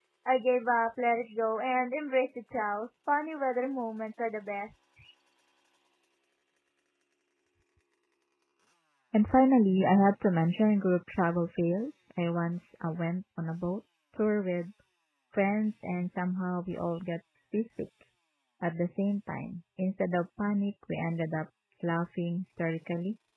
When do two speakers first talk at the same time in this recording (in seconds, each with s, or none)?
none